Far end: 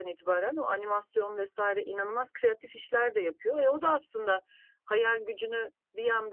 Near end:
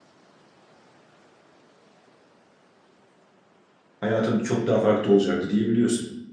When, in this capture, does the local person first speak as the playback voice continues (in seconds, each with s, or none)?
4.0 s